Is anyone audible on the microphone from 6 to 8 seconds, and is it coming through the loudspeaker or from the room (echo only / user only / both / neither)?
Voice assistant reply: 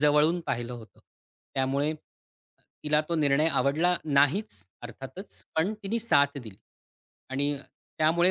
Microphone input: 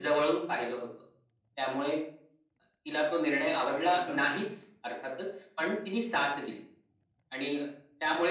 echo only